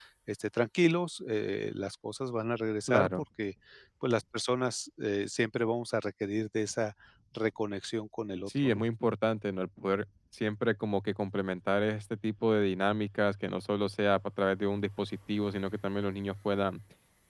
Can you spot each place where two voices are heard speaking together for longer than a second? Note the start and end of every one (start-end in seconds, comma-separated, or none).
none